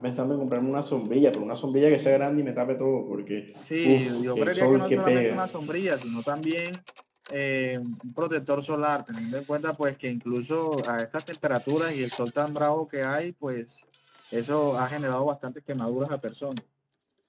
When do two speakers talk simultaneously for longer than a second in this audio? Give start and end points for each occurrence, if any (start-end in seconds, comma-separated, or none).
3.8-5.4